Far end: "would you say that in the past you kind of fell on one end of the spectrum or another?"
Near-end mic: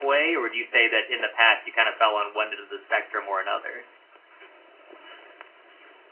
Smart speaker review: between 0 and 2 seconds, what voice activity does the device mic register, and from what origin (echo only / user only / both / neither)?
echo only